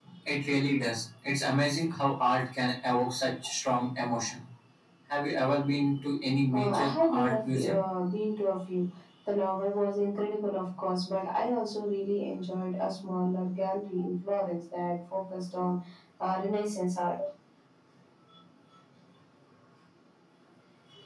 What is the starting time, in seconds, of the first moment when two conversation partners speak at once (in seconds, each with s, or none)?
6.5 s